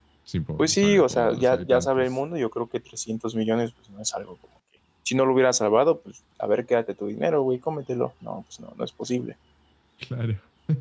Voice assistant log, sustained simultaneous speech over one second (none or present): present